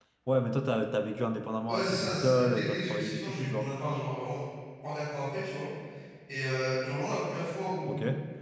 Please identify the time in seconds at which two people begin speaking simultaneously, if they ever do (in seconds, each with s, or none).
1.7 s